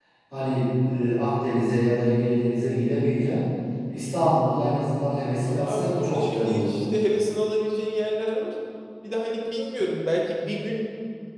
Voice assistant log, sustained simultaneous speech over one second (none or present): present